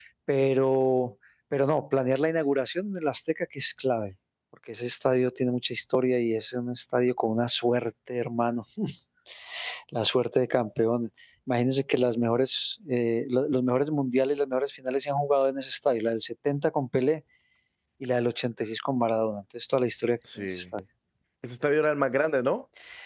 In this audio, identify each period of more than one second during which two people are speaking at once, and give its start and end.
none

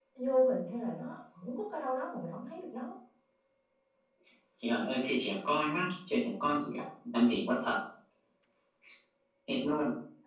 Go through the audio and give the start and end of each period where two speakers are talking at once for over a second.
none

